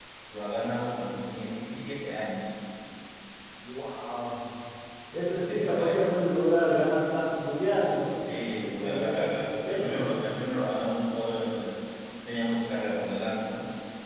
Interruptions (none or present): present